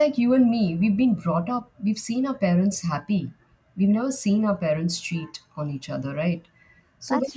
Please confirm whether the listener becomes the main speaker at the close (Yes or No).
No